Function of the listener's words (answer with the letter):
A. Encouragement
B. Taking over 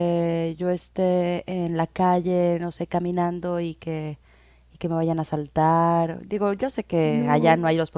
A